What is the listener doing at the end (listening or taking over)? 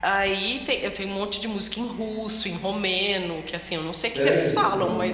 listening